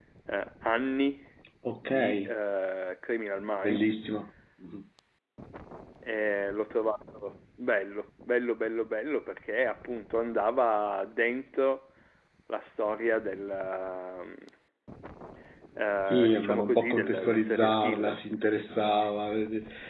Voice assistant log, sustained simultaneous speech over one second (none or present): present